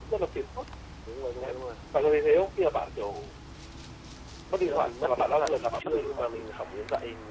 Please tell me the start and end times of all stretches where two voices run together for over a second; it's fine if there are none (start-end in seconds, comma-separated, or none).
4.7-6.4